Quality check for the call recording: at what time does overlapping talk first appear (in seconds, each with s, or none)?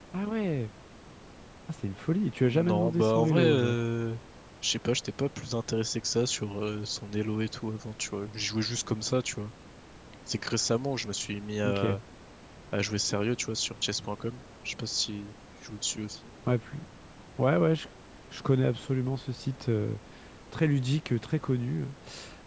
2.4 s